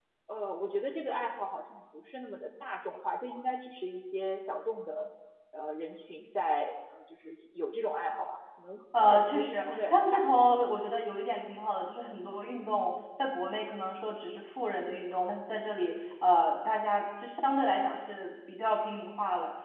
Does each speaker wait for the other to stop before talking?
No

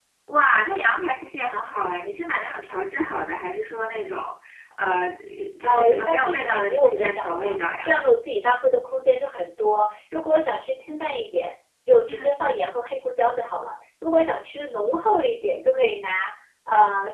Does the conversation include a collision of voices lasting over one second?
Yes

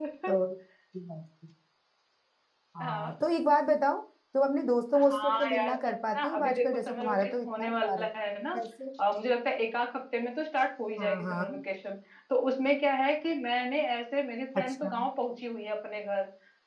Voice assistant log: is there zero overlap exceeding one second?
No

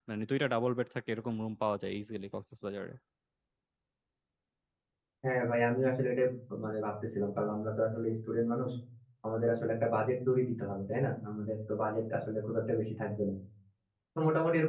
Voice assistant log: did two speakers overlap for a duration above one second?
No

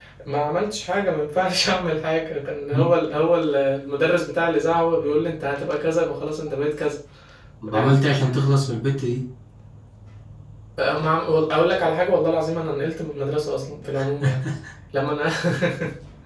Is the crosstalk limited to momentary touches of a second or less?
Yes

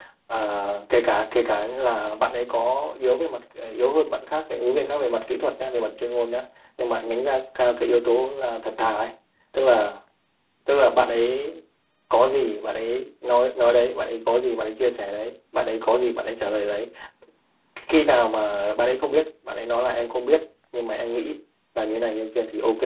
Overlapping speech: No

